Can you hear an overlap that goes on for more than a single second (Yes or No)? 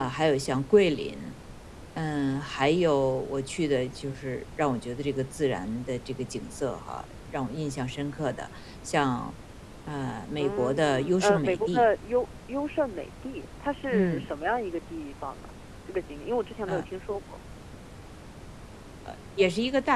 Yes